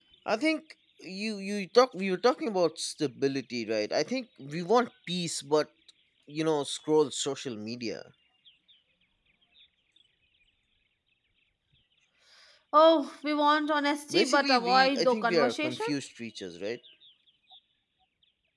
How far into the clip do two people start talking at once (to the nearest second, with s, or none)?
14 s